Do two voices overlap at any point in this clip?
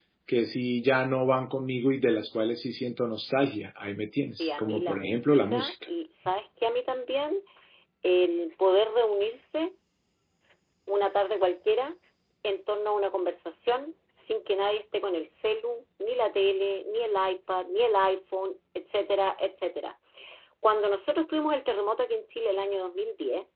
Yes, from 4.3 s

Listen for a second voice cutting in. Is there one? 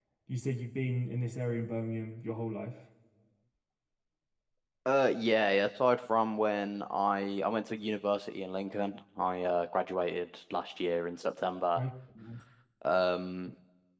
No

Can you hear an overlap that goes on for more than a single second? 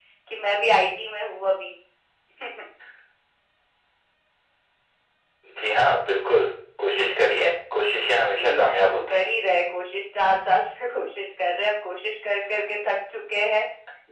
Yes, from 8.0 s

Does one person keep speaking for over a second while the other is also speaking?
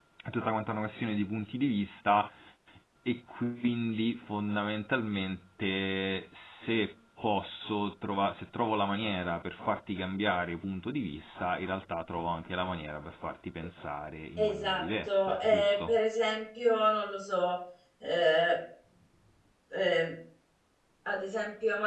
Yes, from 14.4 s

